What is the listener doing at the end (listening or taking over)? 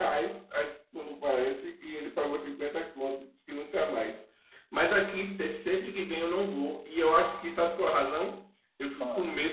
listening